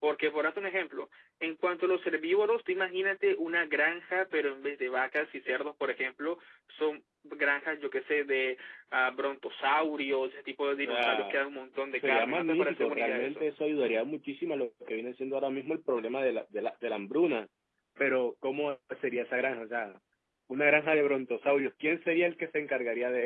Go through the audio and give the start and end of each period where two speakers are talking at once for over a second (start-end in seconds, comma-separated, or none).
12.0-13.5